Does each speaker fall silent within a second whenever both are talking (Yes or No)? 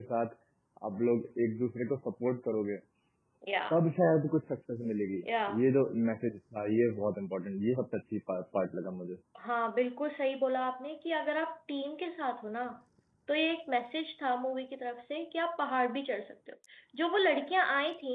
Yes